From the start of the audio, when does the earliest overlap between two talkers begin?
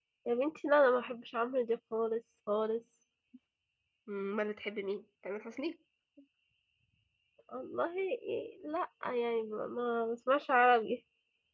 none

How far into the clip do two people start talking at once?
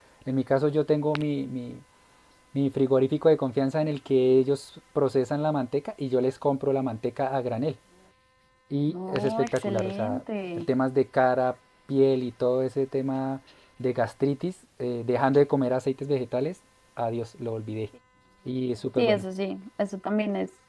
8.9 s

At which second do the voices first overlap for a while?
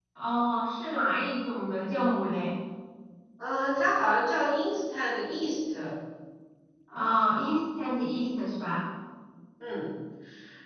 none

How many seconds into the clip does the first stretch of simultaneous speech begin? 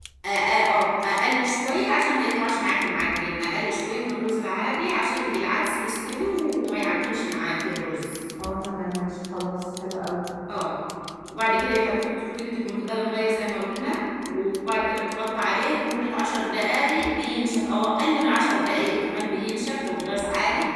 none

